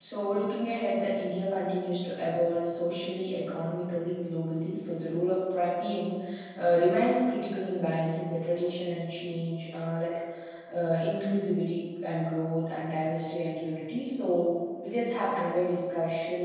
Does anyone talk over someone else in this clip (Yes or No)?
No